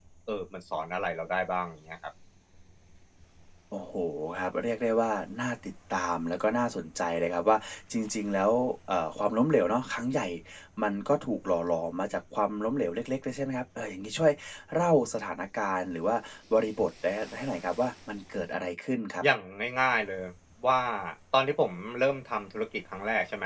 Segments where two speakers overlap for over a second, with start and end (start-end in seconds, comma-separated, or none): none